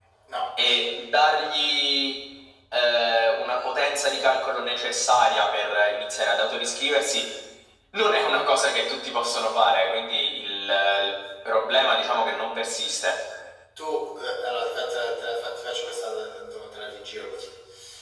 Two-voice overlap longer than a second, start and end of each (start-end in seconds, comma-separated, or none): none